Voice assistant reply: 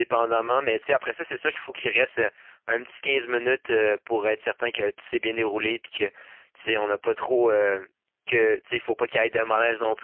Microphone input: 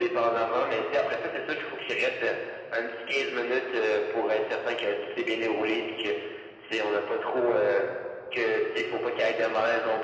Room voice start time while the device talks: none

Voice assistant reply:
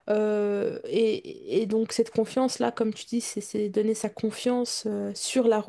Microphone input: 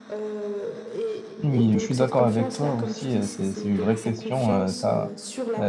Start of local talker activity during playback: 1 s

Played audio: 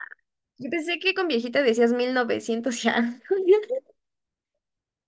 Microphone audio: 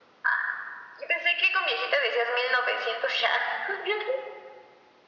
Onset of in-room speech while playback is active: none

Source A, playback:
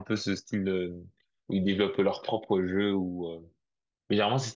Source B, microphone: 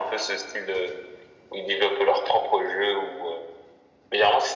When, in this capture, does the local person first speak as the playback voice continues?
none

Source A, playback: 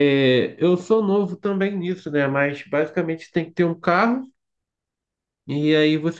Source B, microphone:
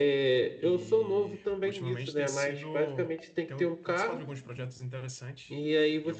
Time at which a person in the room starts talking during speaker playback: 1 s

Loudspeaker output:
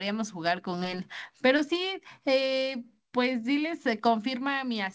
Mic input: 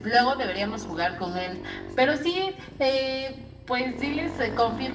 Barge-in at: none

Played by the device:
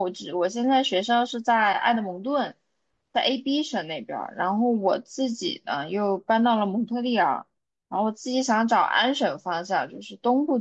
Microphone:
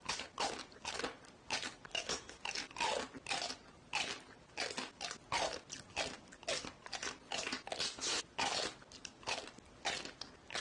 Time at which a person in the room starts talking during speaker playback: none

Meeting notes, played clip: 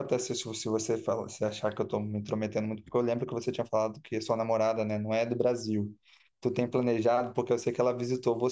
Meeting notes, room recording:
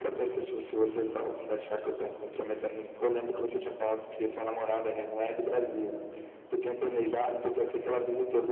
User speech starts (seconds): none

